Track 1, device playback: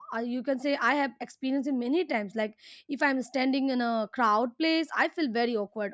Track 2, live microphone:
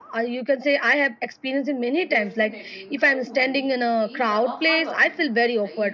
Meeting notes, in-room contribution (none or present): present